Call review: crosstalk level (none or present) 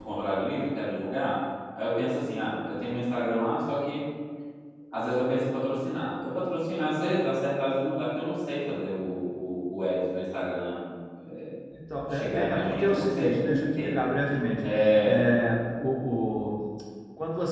present